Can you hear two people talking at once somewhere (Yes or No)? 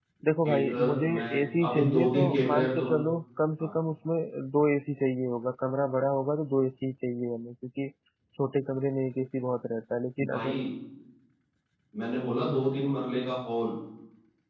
Yes